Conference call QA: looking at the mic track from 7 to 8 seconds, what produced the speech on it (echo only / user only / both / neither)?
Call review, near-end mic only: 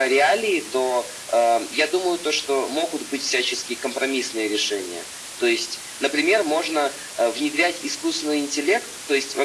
echo only